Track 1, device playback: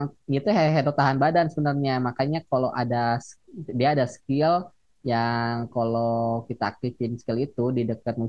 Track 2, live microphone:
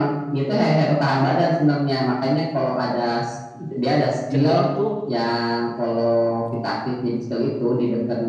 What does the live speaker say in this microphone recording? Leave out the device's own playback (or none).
cenderung tuh